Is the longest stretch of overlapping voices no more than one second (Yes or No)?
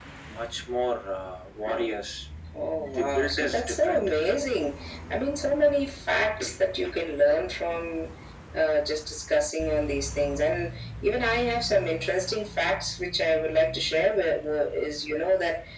No